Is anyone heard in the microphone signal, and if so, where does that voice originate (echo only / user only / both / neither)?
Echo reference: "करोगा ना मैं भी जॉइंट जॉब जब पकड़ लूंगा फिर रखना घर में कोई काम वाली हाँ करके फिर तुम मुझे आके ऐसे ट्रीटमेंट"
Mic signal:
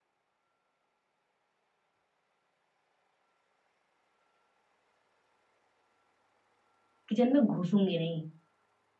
user only